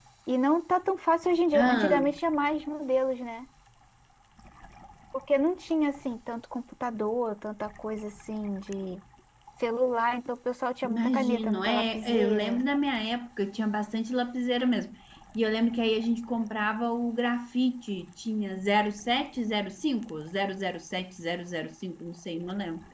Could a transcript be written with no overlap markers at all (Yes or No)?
No